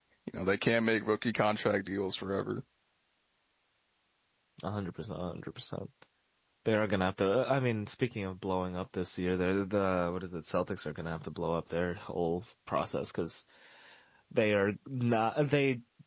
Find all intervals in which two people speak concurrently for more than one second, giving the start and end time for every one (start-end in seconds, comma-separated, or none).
none